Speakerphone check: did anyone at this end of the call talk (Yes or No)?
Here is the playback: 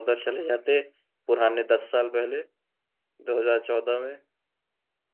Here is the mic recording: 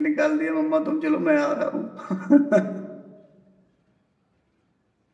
Yes